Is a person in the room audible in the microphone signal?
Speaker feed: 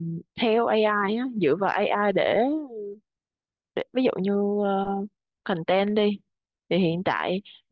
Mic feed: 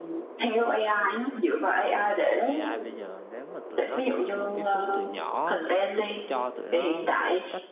Yes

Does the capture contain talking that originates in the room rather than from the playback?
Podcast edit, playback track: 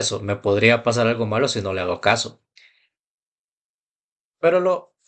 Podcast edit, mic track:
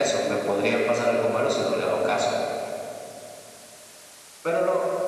No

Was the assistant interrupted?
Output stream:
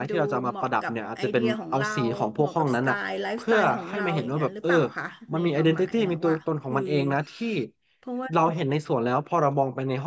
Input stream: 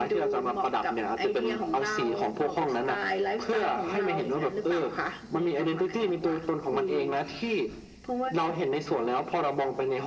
No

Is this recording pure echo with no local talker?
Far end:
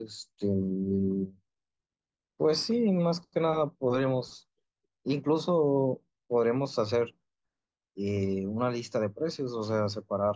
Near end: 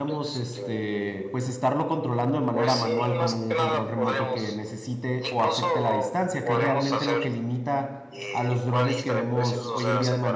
No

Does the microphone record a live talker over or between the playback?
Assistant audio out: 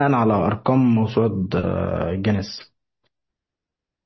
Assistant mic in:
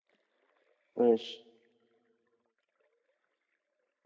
Yes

